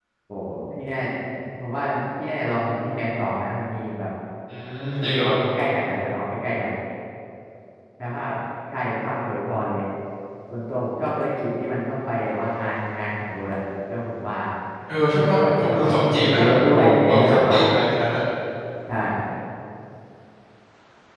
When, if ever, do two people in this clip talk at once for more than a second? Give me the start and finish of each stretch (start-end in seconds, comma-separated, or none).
15.2-17.6